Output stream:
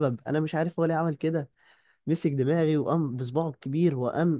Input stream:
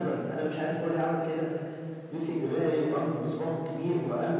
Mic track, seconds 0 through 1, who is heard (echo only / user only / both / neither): echo only